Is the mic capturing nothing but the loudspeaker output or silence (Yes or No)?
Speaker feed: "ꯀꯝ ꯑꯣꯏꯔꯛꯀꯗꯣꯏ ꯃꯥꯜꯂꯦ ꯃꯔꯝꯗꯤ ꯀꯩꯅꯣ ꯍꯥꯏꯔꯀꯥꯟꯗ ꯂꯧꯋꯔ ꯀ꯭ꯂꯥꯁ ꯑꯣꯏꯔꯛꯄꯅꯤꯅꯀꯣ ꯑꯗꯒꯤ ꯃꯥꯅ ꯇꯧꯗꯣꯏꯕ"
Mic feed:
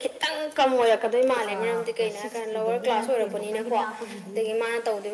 No